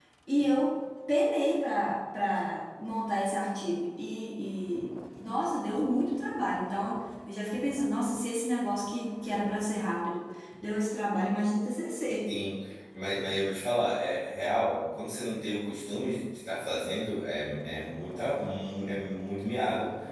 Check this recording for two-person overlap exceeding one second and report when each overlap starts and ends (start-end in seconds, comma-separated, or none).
none